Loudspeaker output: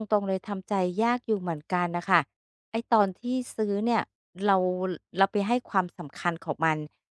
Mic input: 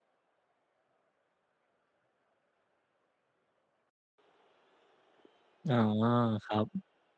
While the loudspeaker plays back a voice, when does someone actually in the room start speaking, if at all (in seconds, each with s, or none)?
5.7 s